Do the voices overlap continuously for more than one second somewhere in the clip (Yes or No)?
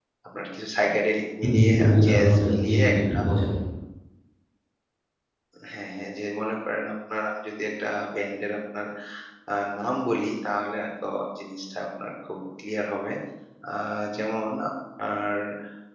Yes